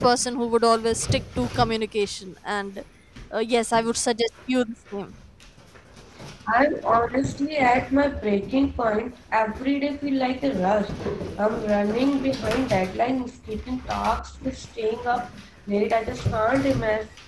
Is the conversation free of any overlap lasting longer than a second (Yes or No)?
Yes